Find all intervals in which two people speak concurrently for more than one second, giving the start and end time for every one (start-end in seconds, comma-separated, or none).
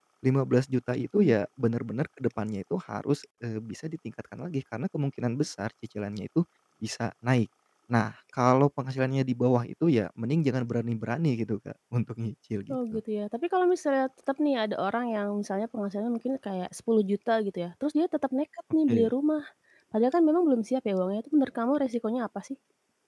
none